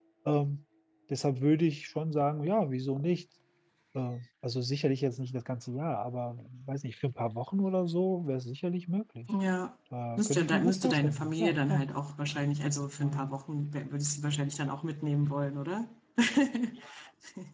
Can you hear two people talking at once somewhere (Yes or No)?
Yes